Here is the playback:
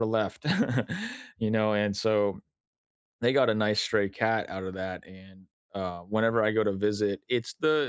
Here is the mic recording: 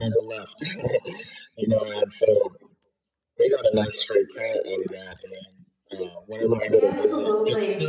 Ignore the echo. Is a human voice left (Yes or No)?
Yes